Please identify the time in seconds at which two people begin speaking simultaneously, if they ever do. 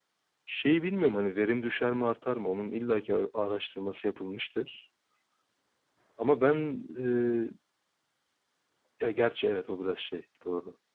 none

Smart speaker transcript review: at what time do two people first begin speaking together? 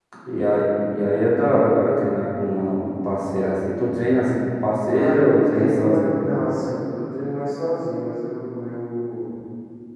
5 s

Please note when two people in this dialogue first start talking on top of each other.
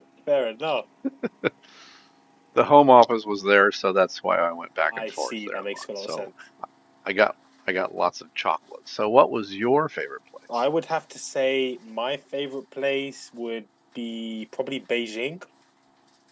5 s

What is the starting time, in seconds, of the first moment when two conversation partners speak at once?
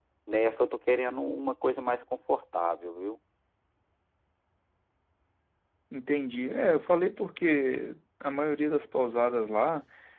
none

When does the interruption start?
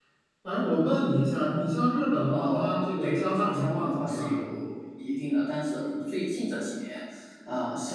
2 s

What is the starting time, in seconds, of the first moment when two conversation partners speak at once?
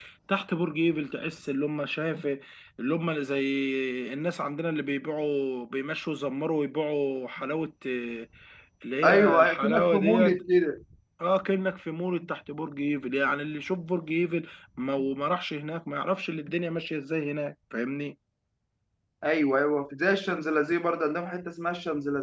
9 s

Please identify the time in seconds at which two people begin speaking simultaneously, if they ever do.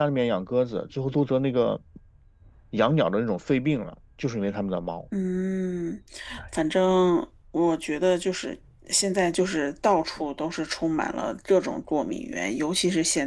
none

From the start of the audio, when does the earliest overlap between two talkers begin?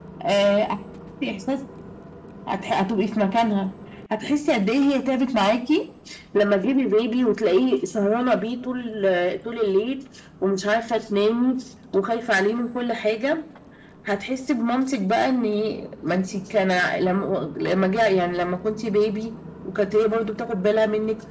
none

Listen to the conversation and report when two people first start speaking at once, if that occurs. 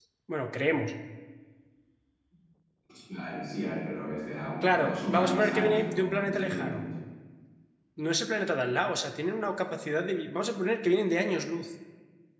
5 s

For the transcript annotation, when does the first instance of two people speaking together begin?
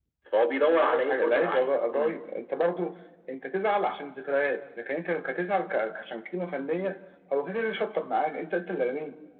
1 s

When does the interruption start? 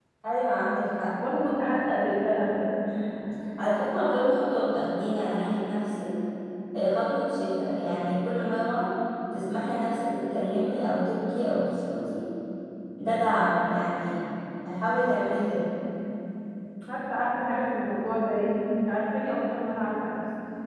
none

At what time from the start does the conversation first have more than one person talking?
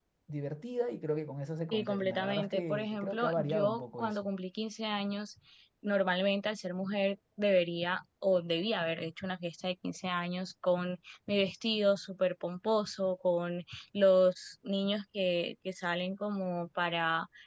2 s

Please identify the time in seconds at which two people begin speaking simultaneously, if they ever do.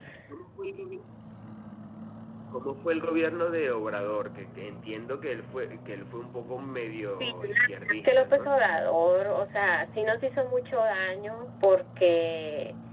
7 s

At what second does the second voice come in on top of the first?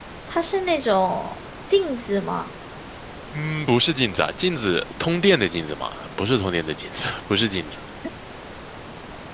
none

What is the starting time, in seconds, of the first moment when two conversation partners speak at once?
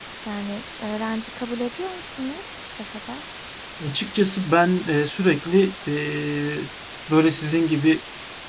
none

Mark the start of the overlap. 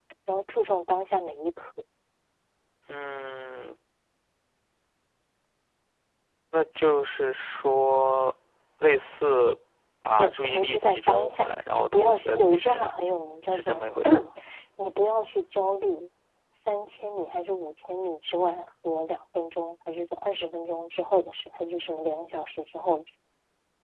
10 s

